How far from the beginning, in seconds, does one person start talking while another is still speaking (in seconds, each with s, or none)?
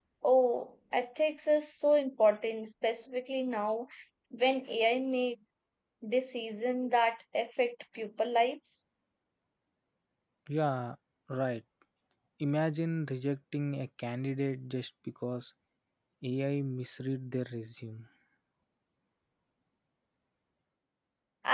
none